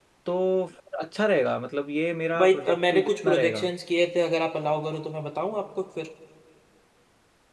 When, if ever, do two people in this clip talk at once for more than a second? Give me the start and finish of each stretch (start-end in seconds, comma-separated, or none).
2.4-3.6